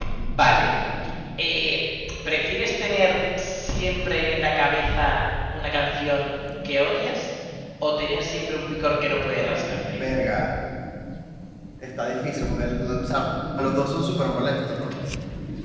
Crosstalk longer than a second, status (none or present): none